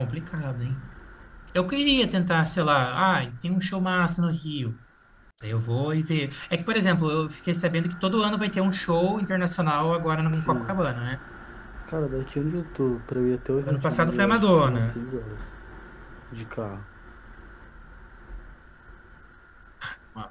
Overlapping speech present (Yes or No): Yes